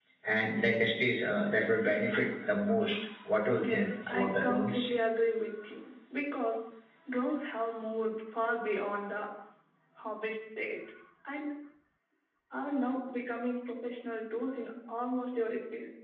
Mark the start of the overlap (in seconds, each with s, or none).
3.6 s